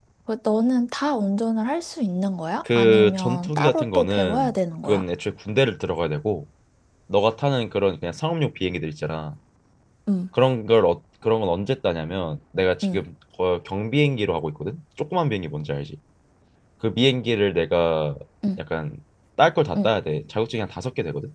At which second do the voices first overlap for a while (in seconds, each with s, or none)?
2.7 s